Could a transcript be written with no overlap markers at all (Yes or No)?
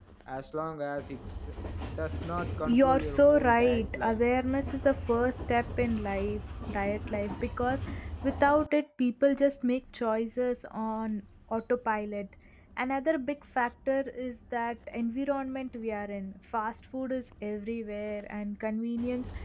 No